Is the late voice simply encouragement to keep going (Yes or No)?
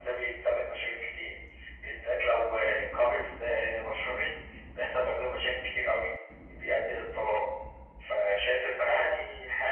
Yes